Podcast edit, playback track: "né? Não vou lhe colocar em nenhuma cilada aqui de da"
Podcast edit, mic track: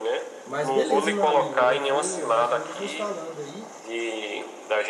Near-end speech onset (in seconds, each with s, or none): 0.4 s